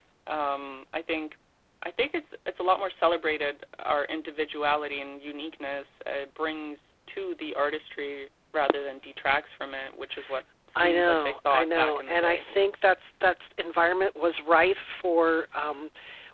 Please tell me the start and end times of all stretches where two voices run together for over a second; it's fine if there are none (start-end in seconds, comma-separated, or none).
10.8-12.4